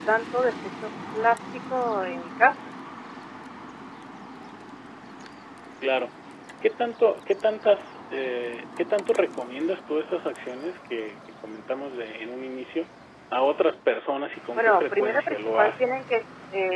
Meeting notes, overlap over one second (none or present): present